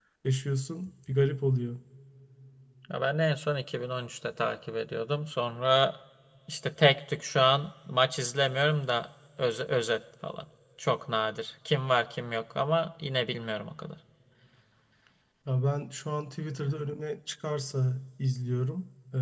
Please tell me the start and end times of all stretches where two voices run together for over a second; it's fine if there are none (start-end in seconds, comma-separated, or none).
none